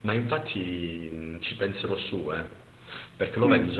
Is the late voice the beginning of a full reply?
No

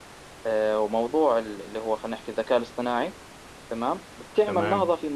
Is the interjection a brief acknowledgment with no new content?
Yes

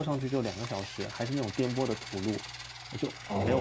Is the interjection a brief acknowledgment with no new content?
No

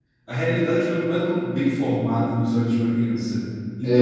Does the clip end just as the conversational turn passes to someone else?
No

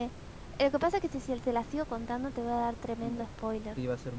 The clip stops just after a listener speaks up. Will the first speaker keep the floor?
No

